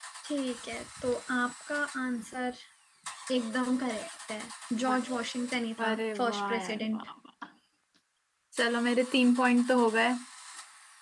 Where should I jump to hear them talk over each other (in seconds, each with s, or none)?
5.8 s